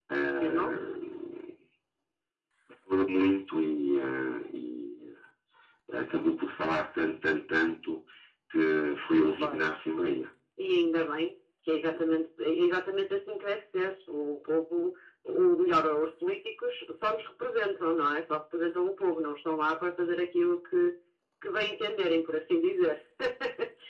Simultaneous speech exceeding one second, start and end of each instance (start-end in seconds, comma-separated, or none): none